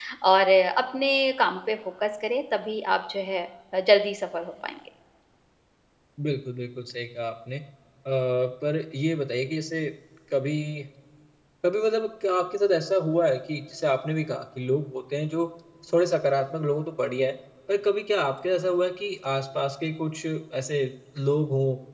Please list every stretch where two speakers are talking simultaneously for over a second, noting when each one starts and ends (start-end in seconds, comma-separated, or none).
none